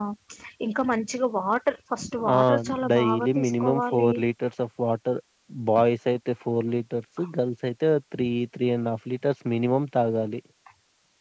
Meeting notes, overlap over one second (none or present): present